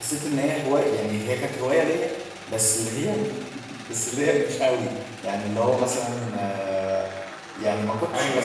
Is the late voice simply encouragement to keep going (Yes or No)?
No